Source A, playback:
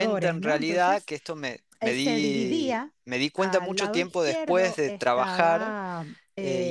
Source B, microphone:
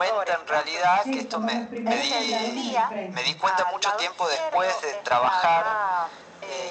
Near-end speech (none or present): present